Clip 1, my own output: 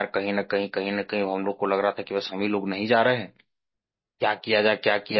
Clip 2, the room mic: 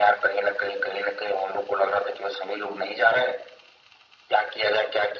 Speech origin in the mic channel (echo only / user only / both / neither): echo only